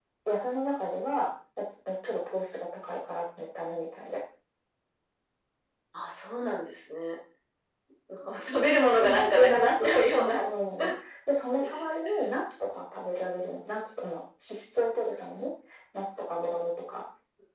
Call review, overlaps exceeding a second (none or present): present